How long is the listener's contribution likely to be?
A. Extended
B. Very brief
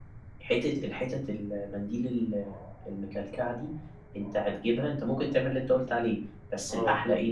B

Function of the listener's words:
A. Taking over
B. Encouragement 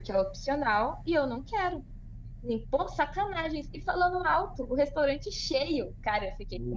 B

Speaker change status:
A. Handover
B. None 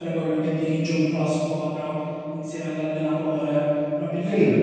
B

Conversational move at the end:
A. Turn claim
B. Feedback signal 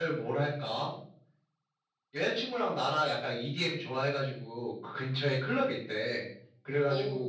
B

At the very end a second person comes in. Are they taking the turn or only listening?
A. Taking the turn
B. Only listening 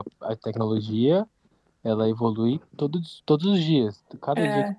B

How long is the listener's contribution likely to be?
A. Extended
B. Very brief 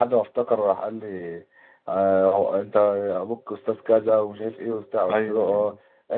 B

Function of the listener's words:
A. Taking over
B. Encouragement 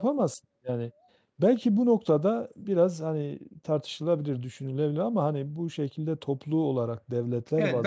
A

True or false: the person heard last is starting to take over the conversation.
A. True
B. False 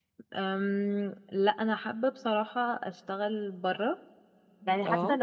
B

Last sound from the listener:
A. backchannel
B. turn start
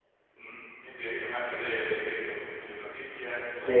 B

